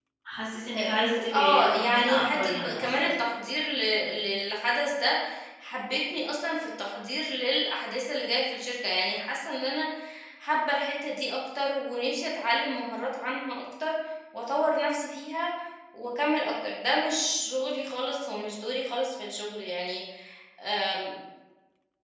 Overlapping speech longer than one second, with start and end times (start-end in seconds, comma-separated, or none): 0.8-3.1